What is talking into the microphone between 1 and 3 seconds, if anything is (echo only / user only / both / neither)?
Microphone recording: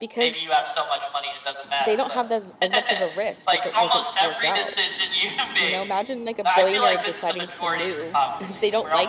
both